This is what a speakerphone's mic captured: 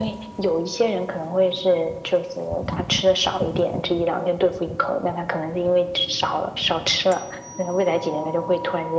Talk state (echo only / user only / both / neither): echo only